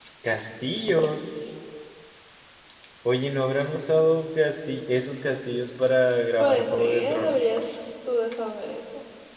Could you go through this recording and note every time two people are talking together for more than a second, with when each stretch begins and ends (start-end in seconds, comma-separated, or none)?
6.4-7.7